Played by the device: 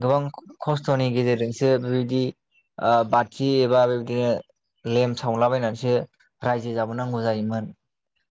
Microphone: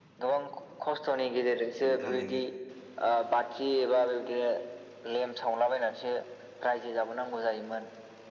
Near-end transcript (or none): उनाव थारैनो